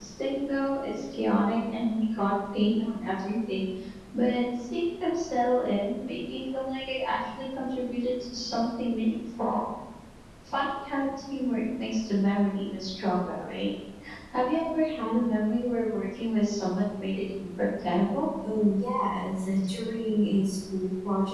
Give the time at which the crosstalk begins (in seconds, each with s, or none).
none